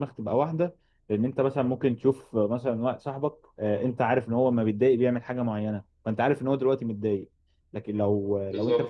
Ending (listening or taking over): listening